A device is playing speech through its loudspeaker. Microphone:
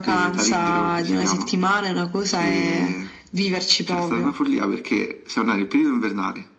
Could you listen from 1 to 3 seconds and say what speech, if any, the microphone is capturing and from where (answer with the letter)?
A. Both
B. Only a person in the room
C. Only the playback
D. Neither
C